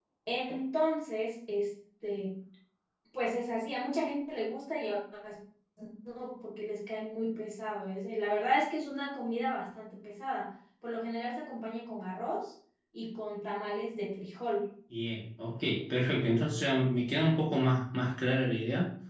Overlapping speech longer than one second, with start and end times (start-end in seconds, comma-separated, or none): none